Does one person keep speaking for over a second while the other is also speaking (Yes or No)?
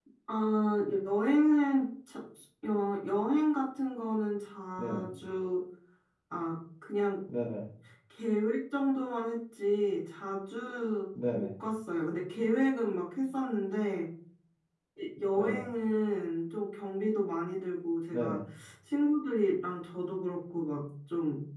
No